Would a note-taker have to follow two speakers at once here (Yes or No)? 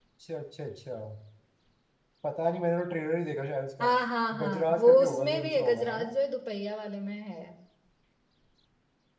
Yes